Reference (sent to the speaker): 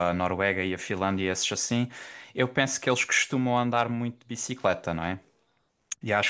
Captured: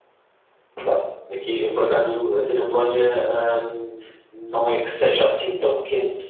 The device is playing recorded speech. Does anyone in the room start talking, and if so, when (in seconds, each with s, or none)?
0.8 s